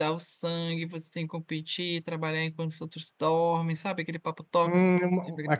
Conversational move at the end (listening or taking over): taking over